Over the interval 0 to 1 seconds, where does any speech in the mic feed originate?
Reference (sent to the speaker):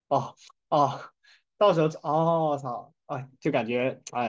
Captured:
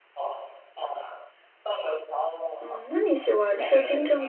echo only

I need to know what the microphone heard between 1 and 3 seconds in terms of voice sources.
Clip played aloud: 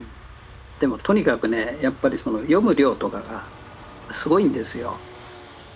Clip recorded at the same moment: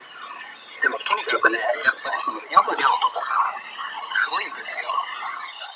echo only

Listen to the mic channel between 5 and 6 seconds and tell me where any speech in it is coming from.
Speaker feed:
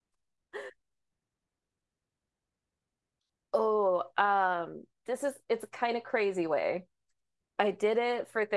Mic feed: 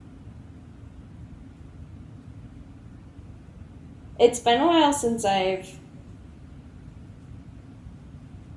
user only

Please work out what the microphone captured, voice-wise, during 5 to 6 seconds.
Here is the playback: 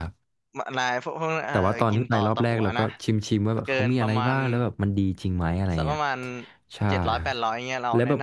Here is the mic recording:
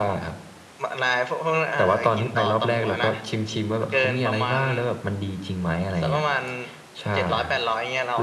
echo only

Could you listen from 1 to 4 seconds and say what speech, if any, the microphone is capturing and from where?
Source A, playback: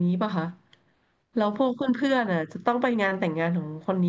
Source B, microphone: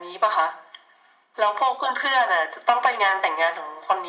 echo only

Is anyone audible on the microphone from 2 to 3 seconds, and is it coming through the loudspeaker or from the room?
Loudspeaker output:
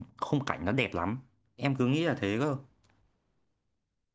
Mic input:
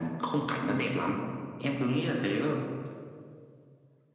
echo only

